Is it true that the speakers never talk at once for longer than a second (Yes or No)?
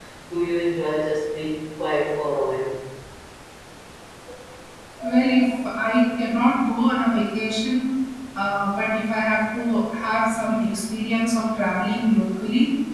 Yes